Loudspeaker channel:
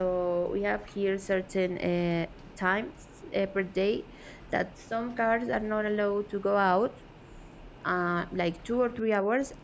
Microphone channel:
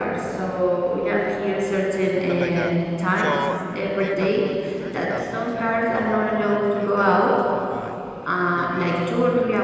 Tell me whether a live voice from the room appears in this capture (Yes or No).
Yes